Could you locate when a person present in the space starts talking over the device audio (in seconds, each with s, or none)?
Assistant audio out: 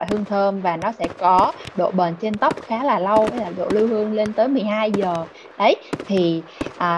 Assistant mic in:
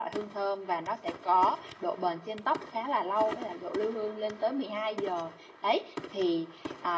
none